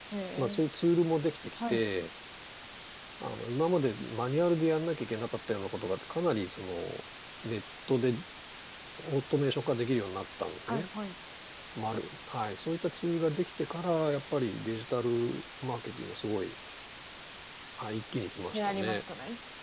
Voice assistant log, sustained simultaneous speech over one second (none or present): none